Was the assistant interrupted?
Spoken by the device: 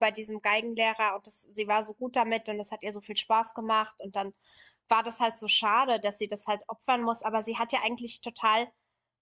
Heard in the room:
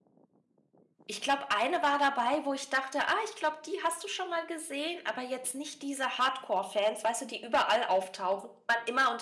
Yes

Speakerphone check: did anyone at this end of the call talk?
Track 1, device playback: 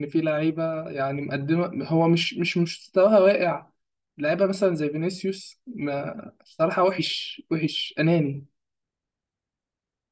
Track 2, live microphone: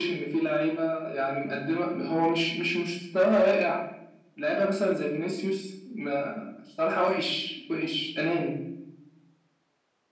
No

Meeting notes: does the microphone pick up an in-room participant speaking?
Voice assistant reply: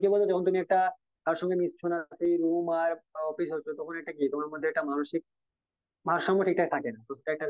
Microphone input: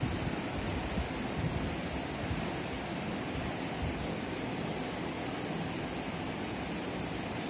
No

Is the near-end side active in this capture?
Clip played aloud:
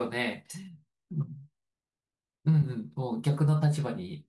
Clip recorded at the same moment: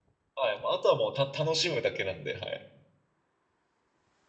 Yes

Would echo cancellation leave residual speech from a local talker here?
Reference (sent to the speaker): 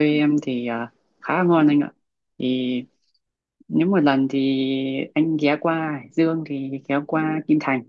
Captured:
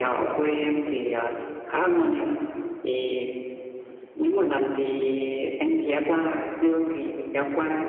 No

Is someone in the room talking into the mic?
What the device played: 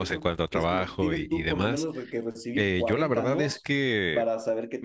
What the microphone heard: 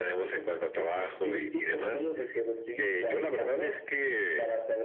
No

